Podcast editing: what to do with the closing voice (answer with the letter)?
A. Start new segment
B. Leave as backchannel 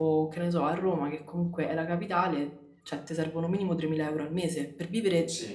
B